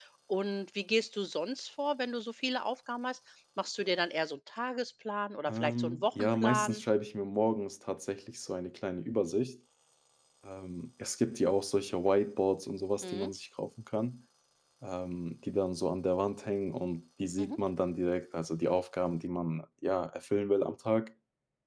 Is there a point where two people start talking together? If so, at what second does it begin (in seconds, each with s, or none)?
5.5 s